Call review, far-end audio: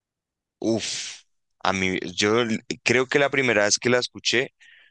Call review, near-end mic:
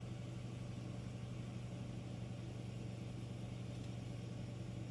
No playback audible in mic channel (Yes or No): Yes